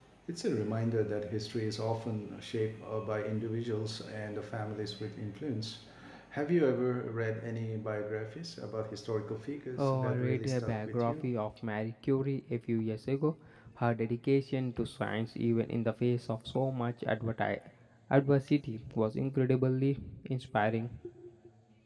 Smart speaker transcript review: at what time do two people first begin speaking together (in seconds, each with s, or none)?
9.8 s